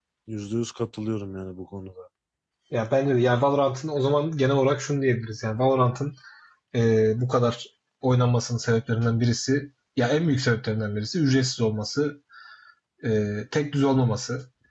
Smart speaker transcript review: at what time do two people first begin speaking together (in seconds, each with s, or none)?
none